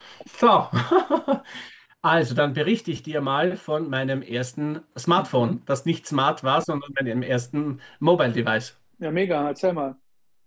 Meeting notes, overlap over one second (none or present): none